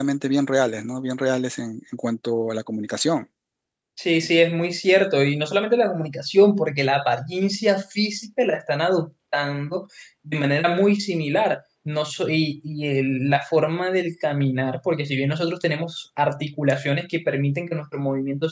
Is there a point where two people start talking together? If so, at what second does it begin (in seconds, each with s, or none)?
none